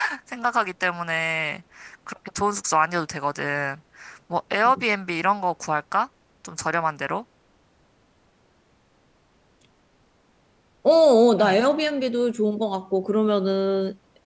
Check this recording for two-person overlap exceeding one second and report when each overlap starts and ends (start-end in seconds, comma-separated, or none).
none